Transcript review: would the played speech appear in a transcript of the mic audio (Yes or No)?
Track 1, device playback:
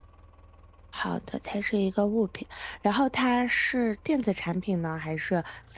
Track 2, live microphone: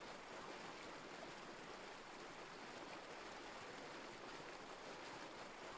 No